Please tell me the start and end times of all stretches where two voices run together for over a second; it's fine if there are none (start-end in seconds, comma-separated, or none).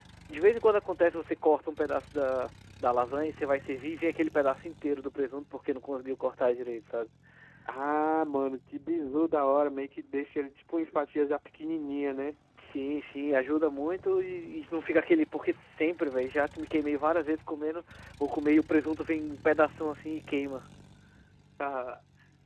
none